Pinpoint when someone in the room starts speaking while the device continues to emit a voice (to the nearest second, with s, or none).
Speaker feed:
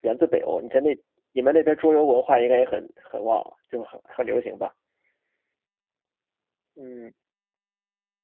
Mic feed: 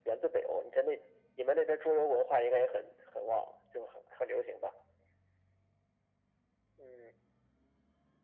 none